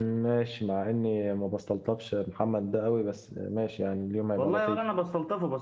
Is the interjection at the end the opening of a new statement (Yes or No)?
Yes